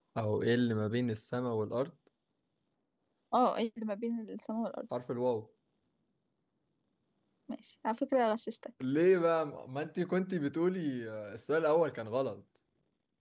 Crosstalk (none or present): none